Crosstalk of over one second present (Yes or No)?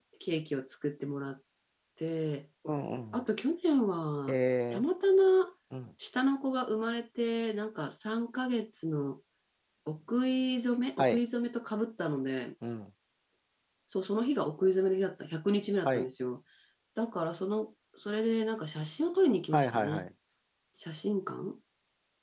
No